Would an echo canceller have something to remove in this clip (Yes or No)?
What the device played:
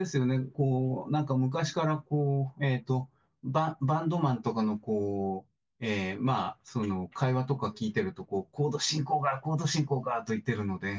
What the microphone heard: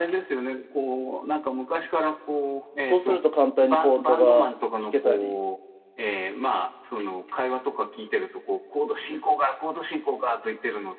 Yes